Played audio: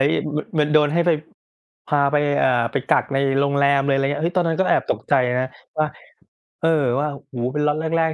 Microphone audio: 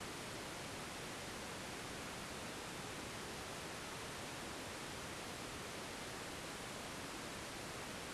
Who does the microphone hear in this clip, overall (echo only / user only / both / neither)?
neither